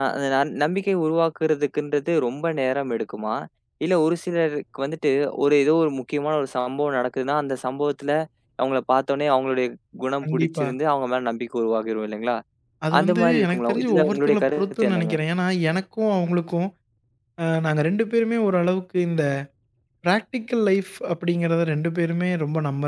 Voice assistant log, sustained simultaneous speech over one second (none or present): present